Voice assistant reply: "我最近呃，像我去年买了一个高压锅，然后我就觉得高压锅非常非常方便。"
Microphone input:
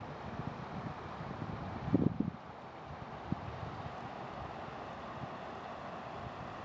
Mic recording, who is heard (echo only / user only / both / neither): neither